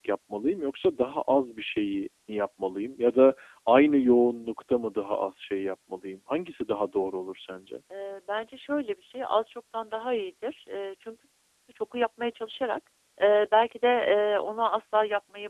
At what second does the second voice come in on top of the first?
none

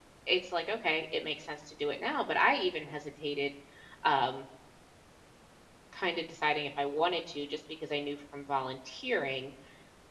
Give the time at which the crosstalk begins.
none

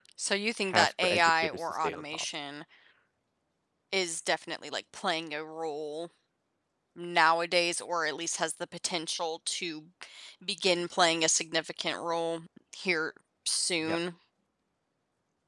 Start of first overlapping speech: 0.7 s

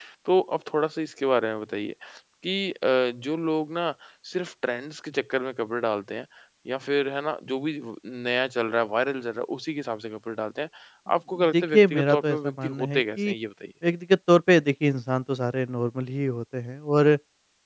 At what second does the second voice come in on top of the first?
11.5 s

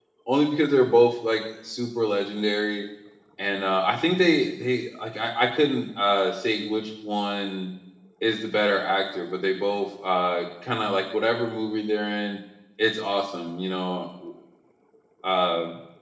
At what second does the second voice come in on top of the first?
none

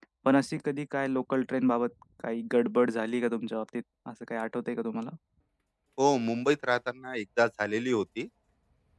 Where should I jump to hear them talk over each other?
none

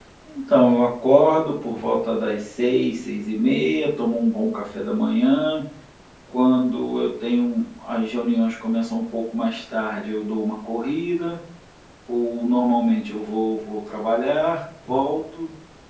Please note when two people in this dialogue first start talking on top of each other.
none

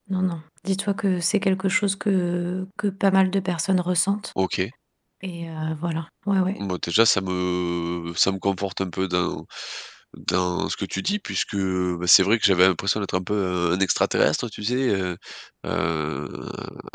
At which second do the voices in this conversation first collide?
none

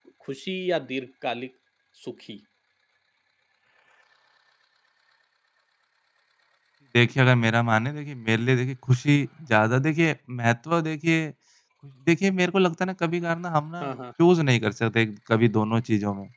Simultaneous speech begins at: none

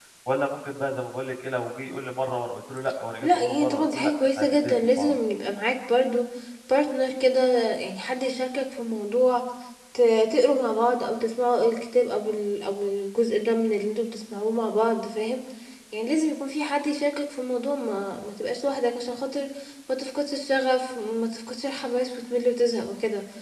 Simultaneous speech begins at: 3.2 s

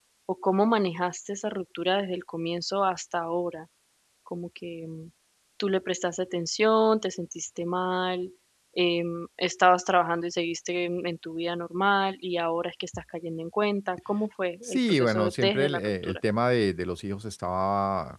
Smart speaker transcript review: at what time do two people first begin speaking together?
14.6 s

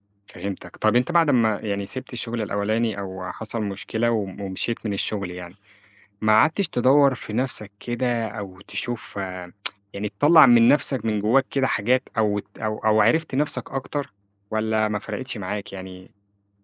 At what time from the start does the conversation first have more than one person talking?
none

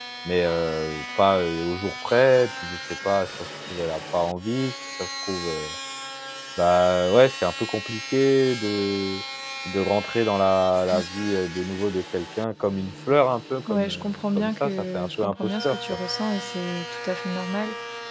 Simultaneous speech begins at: 13.7 s

